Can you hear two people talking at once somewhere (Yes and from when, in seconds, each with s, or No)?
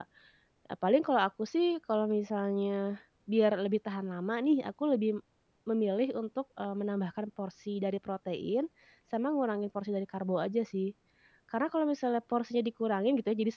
No